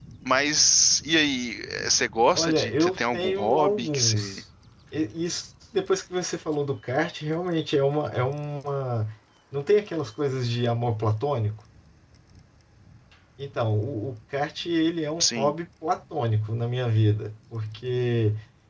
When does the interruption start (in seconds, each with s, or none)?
2.4 s